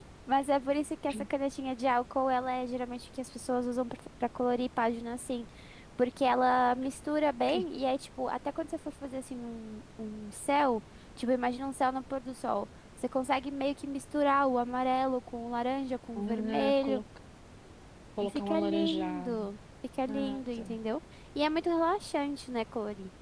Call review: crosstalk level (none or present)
present